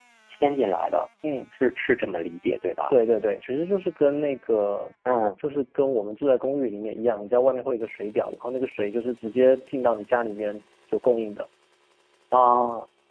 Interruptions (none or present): none